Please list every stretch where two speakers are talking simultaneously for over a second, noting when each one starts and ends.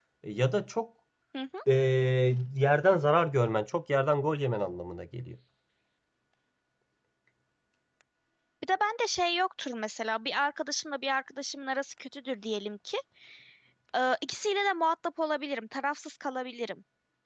none

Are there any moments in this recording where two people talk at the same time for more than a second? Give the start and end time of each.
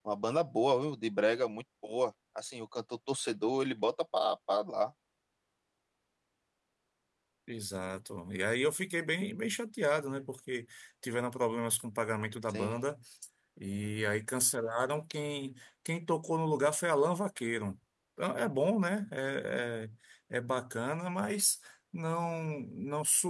none

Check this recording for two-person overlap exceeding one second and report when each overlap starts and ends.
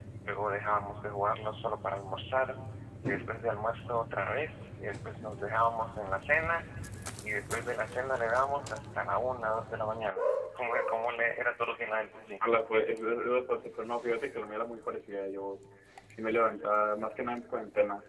none

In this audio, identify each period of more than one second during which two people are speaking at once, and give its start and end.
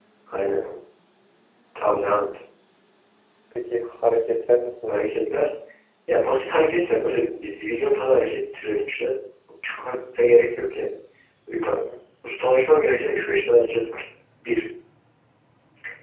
none

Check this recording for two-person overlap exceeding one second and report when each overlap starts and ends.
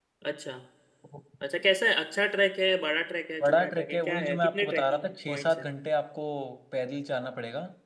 3.4-5.6

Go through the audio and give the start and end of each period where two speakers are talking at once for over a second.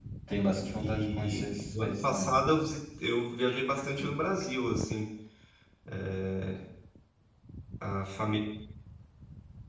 0.8-2.3

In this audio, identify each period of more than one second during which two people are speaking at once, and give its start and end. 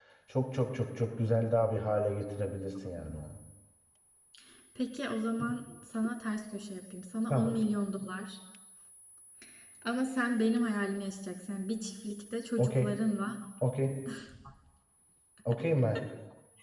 none

